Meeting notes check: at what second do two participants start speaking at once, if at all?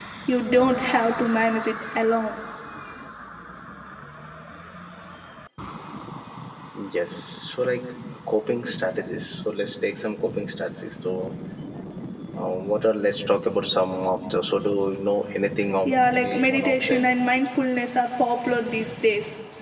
15.8 s

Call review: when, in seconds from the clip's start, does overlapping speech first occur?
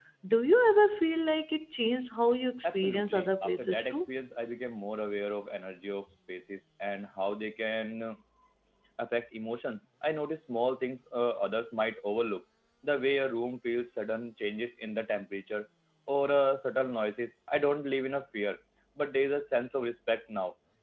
2.6 s

